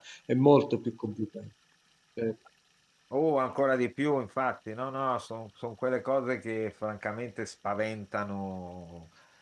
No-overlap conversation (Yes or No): Yes